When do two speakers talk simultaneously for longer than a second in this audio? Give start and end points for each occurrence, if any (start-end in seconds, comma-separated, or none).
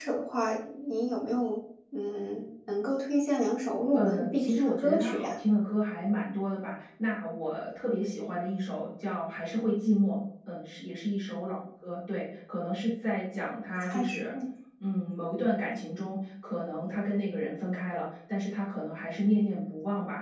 3.9-5.3